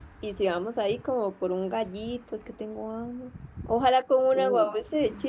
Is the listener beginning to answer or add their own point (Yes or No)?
No